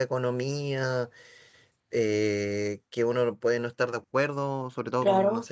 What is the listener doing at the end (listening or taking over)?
listening